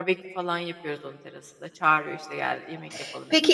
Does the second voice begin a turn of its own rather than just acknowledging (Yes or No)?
Yes